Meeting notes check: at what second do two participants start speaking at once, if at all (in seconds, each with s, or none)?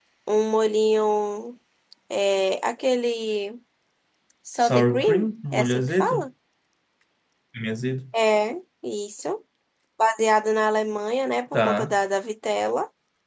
4.7 s